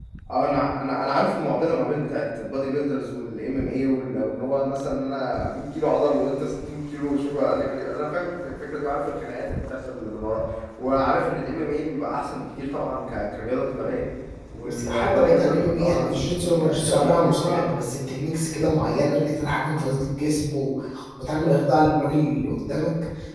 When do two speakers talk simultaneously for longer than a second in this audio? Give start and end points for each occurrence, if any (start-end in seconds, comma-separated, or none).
14.6-17.7